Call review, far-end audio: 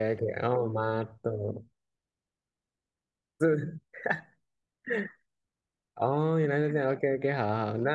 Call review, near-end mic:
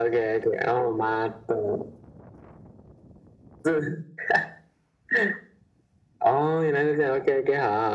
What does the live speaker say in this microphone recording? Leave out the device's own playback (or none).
none